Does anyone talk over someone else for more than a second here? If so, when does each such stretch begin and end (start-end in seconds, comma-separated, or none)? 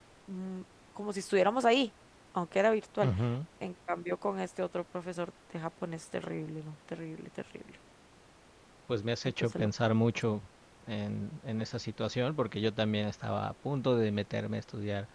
none